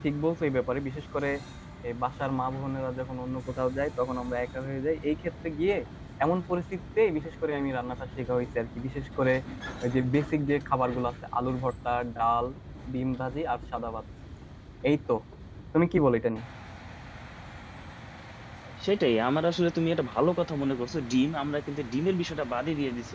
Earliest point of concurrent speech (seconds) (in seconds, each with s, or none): none